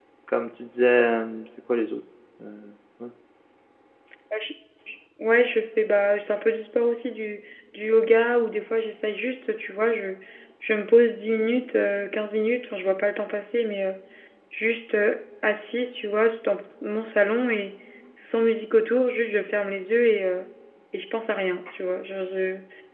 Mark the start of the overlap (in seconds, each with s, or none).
none